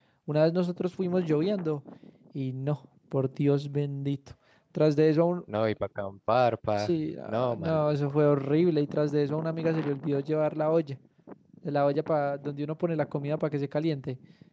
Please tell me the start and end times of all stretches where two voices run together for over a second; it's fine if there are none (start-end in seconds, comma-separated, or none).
6.8-8.2